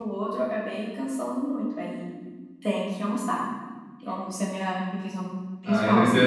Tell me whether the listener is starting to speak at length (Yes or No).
Yes